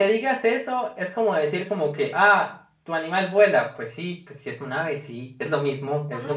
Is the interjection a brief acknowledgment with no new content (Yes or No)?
No